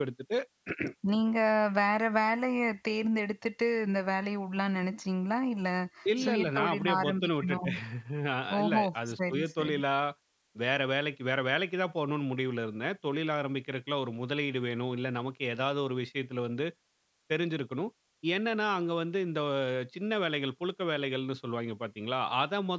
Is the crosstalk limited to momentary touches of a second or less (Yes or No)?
No